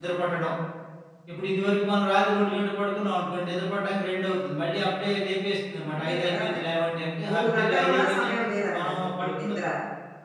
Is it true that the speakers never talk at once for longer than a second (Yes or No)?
No